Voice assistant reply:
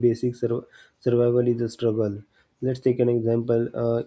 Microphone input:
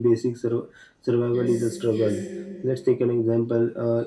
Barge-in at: 1.2 s

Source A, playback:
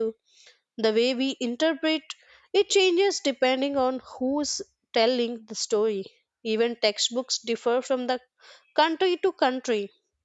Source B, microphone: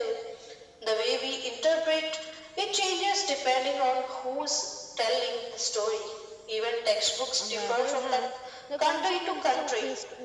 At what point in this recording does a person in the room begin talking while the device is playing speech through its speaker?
7.4 s

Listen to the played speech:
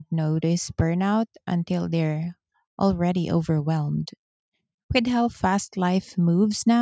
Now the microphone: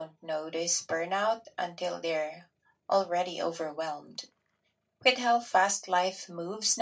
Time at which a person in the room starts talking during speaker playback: none

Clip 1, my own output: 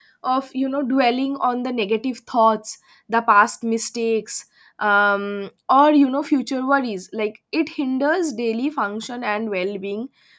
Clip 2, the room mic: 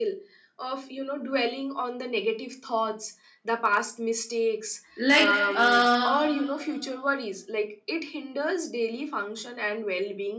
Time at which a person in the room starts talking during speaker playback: 5.0 s

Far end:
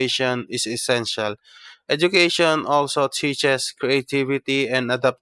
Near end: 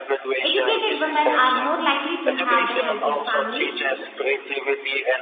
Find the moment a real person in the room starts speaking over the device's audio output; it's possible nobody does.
0.4 s

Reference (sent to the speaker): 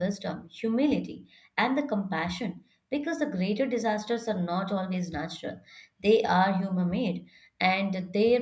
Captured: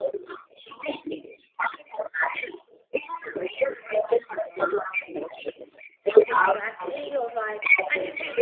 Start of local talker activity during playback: 6.3 s

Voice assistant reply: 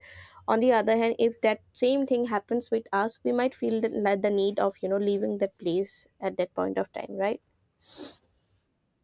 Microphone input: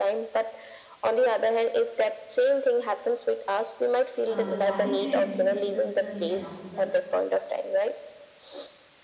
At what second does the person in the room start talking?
4.2 s

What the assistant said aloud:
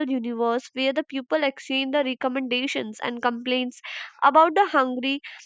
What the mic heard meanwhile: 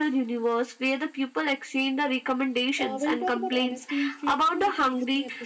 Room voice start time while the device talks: 2.8 s

